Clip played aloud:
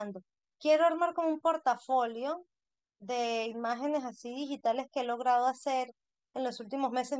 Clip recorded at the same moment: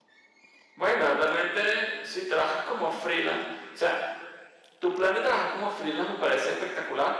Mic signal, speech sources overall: user only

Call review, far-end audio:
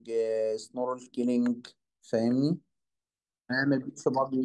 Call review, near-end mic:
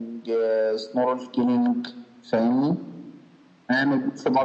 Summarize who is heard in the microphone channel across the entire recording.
echo only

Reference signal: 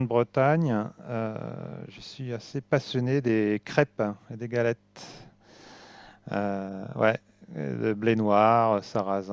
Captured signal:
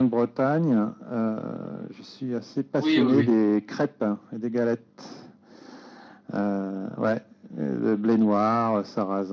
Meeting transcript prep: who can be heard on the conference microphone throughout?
both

